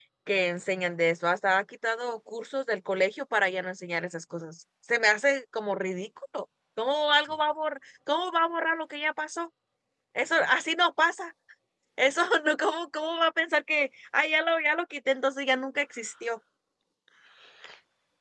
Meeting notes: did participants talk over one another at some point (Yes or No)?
No